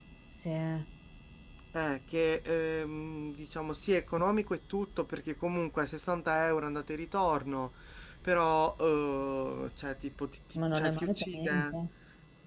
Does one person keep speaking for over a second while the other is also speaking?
Yes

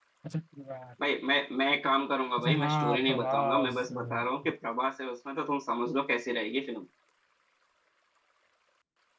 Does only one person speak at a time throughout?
No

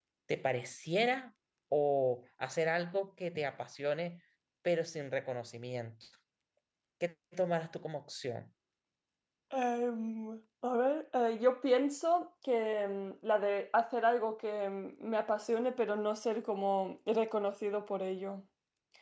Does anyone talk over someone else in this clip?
No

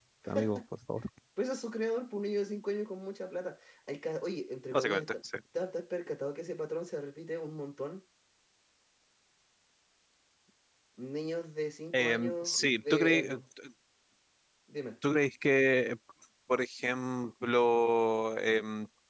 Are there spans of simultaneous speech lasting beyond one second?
Yes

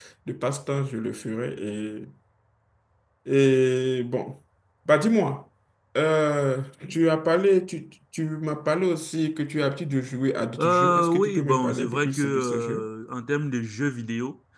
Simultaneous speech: Yes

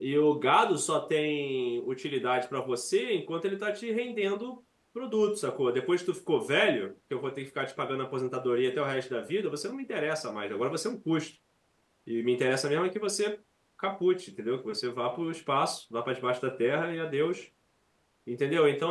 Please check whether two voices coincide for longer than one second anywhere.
No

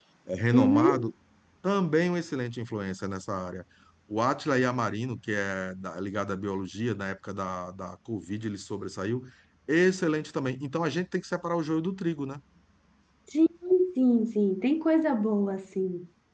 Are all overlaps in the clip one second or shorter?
Yes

